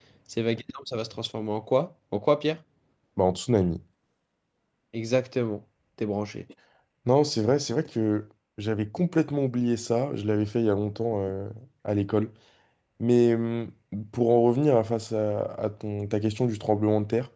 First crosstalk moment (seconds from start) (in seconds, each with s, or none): none